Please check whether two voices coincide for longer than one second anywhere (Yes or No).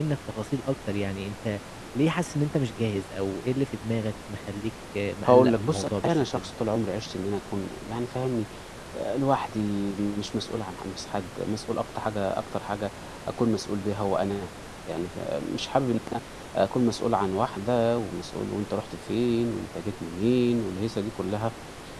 Yes